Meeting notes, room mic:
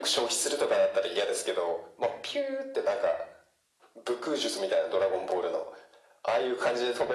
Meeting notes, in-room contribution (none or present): none